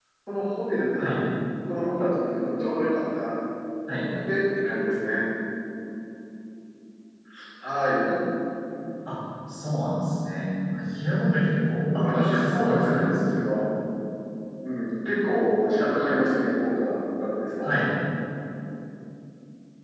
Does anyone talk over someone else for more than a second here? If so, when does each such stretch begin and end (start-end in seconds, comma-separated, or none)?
11.9-13.4